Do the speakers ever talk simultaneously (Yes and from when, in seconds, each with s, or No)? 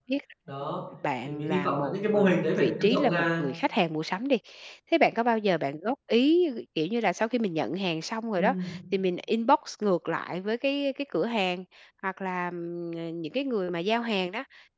Yes, from 1.2 s